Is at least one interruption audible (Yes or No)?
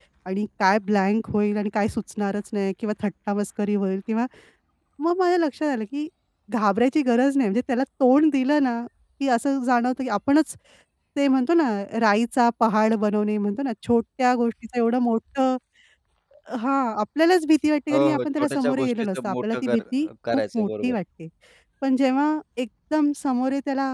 Yes